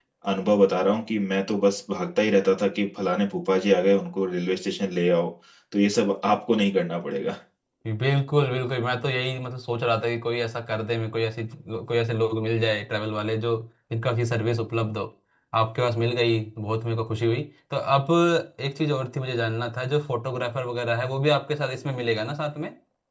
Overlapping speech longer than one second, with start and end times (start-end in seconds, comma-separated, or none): none